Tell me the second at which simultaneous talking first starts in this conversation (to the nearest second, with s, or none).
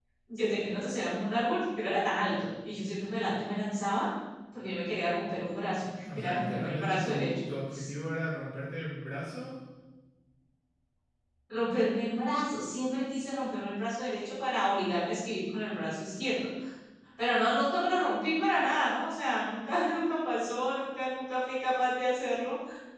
6 s